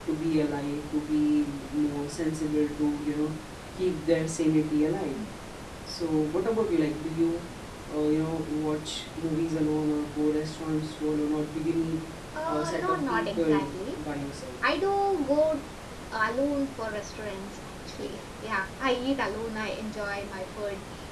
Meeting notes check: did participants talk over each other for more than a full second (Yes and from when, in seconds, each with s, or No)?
Yes, from 12.5 s